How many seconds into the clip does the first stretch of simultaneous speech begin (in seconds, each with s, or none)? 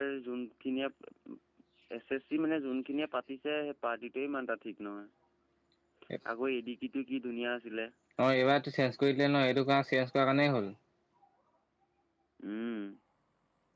none